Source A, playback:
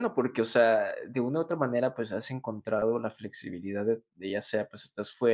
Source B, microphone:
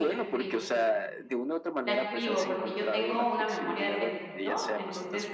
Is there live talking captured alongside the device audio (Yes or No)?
Yes